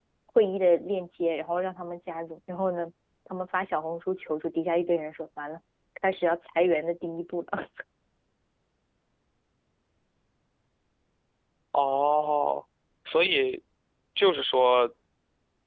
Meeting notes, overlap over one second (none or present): none